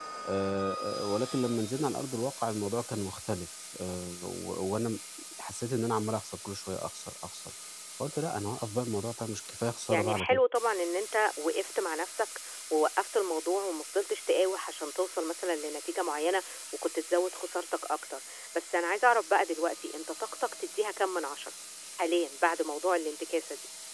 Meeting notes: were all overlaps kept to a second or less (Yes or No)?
Yes